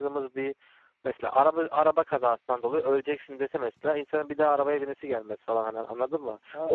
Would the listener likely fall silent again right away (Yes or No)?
No